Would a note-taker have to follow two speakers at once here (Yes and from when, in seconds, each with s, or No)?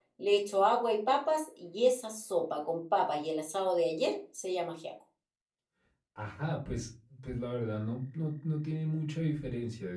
No